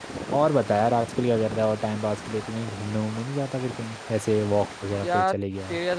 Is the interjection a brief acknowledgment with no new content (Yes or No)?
No